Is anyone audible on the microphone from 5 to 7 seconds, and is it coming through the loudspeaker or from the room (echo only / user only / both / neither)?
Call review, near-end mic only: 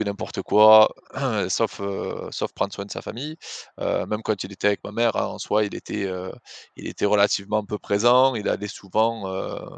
user only